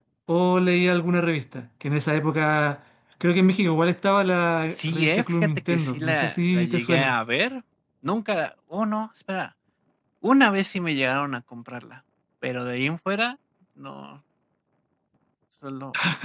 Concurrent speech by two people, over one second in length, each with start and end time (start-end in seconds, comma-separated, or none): 4.7-7.1